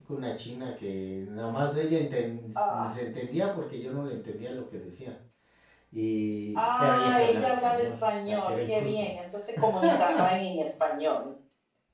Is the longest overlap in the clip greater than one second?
Yes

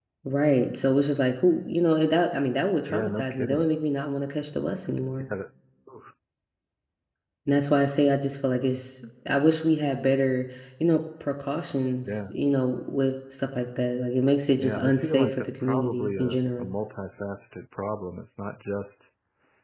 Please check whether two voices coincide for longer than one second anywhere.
Yes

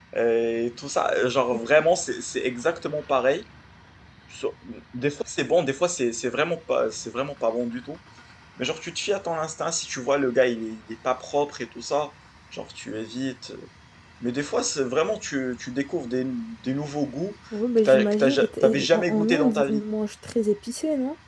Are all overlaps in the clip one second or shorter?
No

